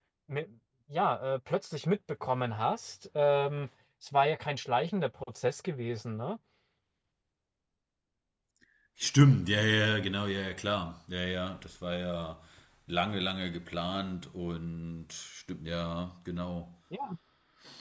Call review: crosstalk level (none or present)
none